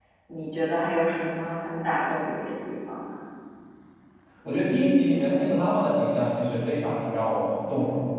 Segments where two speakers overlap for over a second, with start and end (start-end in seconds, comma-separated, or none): none